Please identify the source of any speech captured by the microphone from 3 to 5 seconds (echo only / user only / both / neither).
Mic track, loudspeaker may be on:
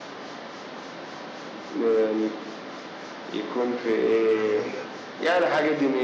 both